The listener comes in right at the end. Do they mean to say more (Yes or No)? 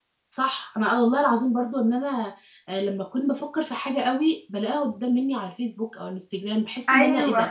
No